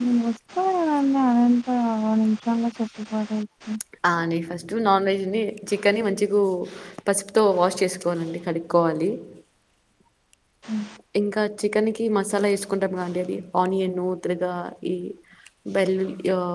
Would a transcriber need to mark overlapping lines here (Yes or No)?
No